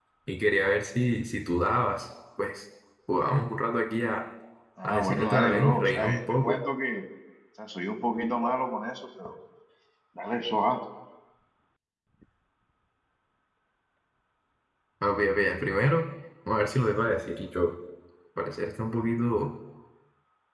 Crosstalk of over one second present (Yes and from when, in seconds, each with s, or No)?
Yes, from 4.8 s